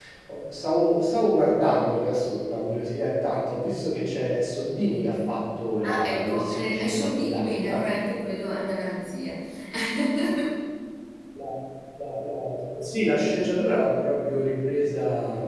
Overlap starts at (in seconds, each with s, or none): 5.8 s